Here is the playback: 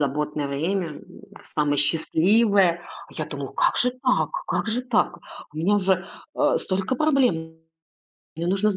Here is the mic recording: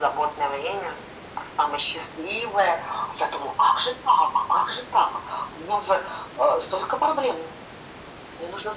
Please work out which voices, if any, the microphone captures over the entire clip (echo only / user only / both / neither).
echo only